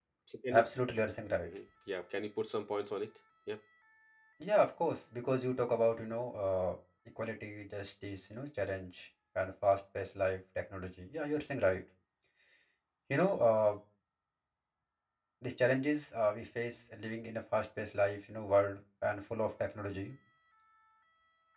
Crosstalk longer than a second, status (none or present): none